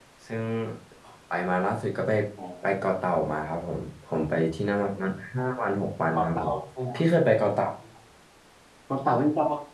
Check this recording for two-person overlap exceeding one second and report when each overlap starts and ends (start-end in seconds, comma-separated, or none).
none